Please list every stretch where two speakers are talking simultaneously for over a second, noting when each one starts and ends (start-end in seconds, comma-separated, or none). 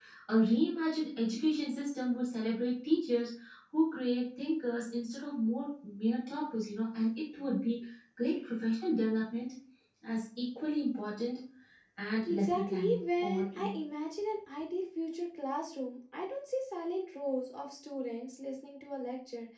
12.3-13.8